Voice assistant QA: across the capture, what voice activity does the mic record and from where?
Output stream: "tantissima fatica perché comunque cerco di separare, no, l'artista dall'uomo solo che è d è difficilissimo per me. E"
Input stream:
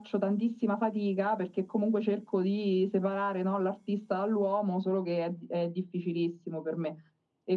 echo only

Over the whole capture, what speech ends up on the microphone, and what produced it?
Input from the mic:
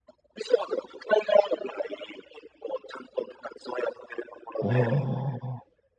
both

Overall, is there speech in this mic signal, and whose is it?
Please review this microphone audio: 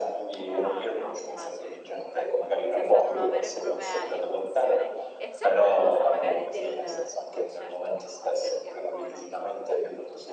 both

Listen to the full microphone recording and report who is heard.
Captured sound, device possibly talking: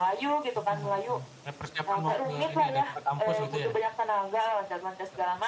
both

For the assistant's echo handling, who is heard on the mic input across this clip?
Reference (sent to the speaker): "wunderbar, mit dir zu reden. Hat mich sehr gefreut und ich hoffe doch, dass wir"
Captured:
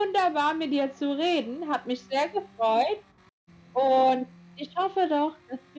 echo only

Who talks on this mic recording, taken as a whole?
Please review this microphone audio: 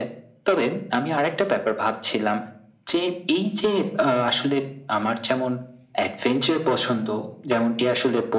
echo only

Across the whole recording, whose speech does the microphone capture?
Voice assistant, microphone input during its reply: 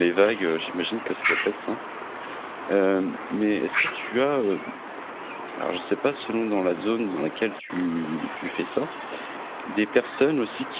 user only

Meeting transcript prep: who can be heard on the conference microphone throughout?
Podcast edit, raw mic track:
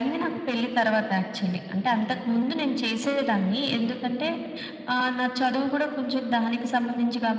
echo only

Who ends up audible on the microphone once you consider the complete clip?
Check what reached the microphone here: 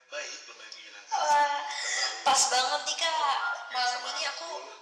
echo only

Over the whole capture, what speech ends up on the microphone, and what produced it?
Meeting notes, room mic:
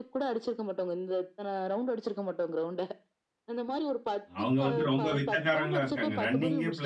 both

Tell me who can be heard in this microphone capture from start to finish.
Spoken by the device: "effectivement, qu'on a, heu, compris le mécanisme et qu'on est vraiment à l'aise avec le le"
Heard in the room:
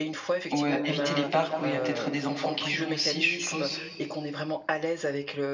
both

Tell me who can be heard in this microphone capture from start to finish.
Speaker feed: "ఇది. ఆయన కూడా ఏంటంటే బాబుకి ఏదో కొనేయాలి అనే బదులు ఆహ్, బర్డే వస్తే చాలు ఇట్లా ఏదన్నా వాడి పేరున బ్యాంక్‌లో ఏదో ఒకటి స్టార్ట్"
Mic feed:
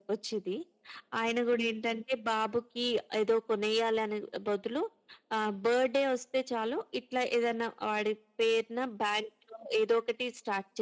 echo only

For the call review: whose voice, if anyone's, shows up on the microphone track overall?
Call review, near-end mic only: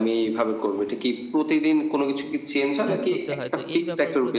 both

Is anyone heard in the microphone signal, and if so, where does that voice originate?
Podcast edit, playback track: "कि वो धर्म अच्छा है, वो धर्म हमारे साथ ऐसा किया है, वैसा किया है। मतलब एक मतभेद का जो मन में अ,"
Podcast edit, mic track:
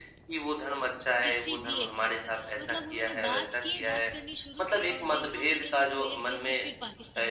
both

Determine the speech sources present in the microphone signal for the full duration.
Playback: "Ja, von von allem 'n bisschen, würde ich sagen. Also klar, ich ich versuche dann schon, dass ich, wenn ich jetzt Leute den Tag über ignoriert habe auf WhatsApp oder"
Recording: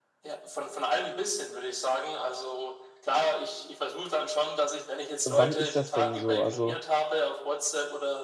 both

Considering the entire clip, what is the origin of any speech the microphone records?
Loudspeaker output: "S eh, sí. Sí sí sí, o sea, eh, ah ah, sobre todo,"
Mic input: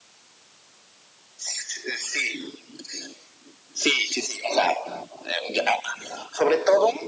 echo only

